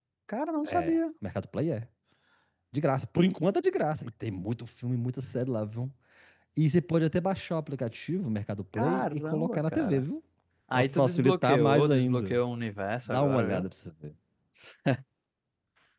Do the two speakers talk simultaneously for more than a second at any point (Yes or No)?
Yes